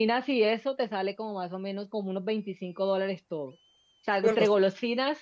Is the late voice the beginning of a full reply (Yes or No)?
No